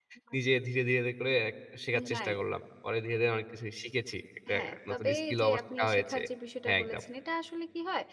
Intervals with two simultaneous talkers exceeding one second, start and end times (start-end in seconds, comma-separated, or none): 4.5-6.2